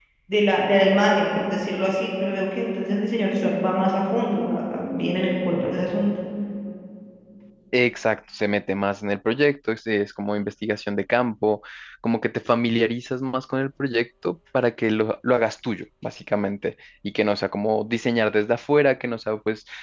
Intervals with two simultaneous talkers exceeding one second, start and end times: none

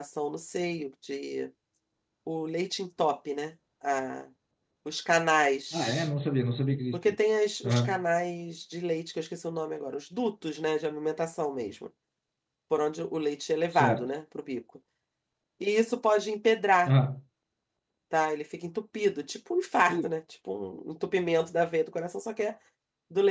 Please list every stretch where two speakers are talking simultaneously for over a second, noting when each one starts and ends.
none

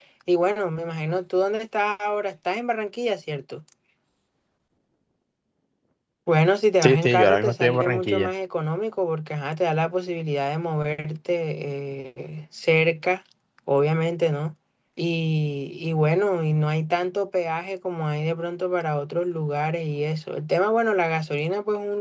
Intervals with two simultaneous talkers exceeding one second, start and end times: 6.8-8.3

